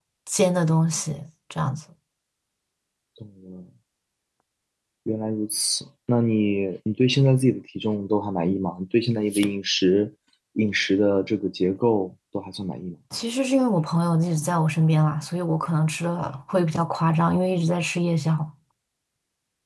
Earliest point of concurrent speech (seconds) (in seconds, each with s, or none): none